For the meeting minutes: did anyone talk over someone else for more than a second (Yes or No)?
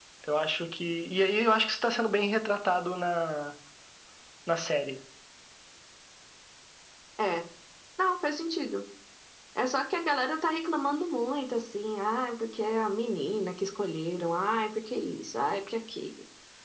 No